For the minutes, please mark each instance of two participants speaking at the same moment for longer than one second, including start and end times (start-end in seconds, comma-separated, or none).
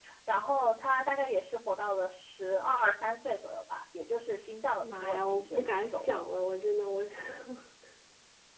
4.8-6.0